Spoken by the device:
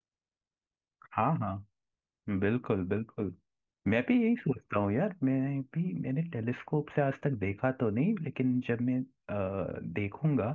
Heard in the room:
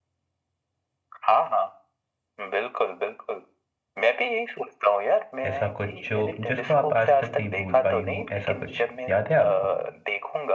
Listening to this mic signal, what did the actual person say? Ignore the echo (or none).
ऐसा कुछ जो जिसको आप आज तक नहीं भूल पाई हो ऐसा कुछ याद है आपको